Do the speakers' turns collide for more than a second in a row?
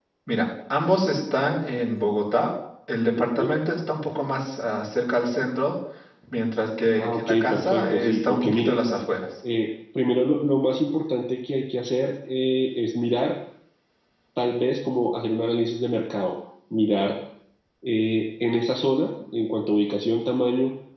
Yes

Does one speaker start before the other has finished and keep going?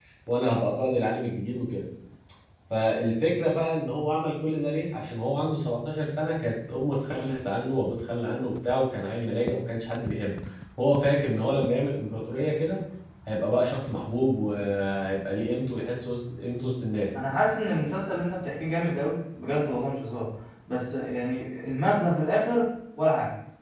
No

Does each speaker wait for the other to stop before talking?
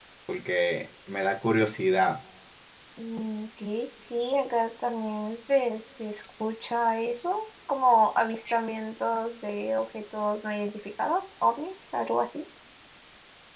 Yes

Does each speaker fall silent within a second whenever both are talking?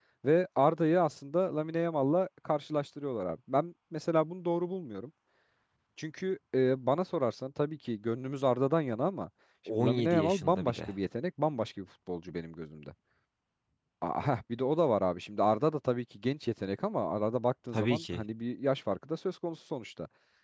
No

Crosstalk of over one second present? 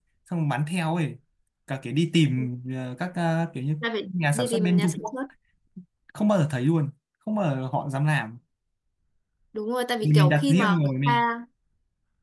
Yes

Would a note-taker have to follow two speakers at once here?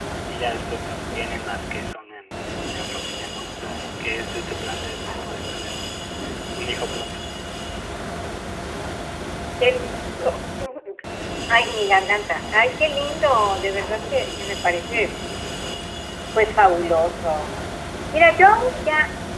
No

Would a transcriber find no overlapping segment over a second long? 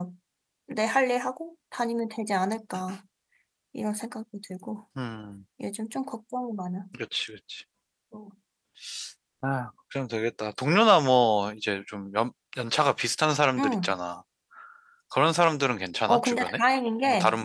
Yes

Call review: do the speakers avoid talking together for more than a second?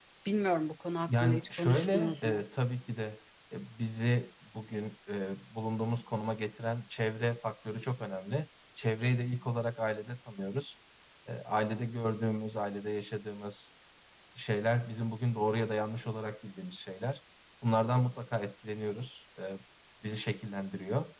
No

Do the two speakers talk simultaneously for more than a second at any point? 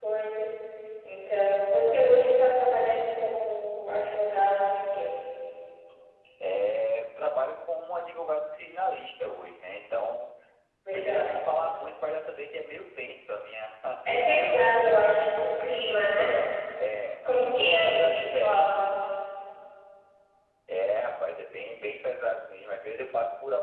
Yes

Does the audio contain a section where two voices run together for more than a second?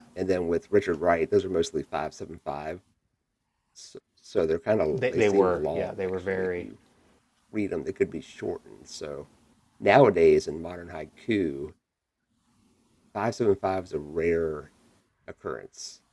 Yes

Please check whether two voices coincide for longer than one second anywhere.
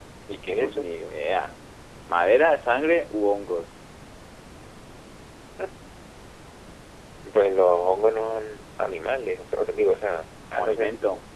No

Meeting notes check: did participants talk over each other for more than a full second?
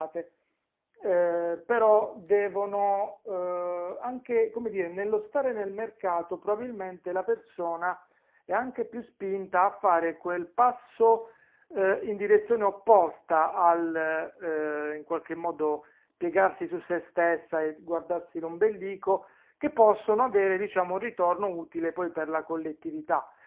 No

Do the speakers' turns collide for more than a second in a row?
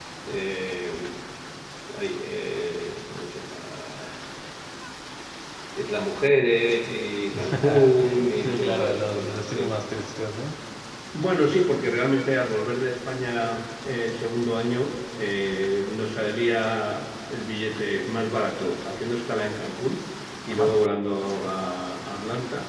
Yes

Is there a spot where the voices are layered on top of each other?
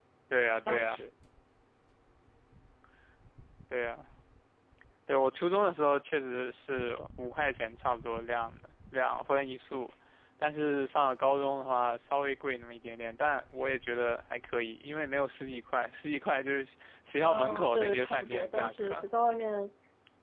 Yes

